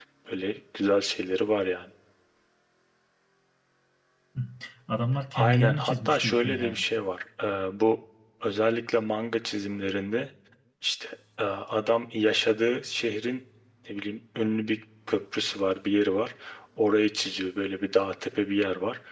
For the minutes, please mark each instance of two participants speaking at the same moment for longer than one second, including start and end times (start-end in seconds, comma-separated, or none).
5.3-6.8